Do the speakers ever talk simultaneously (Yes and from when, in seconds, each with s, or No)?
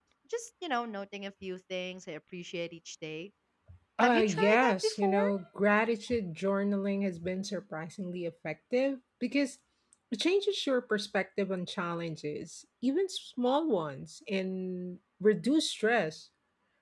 Yes, from 4.0 s